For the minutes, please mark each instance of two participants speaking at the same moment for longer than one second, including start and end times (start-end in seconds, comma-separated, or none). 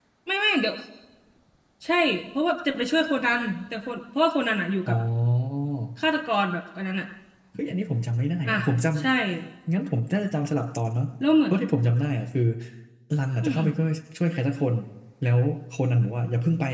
none